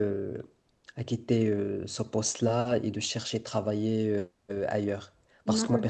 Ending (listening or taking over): listening